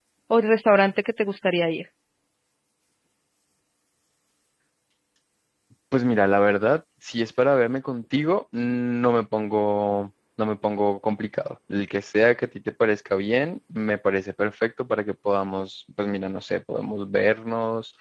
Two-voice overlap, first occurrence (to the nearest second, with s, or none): none